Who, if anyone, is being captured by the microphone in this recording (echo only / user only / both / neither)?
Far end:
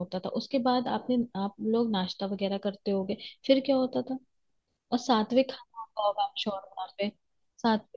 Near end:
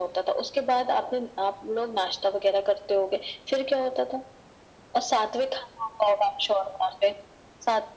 echo only